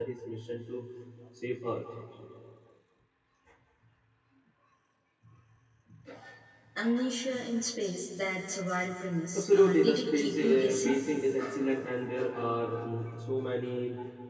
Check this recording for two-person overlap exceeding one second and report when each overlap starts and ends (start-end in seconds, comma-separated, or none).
9.4-11.0